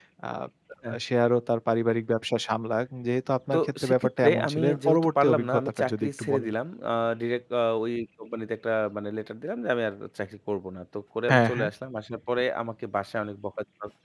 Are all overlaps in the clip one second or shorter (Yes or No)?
No